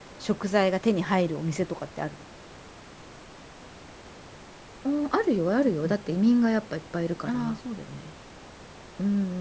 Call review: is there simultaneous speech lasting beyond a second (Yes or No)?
No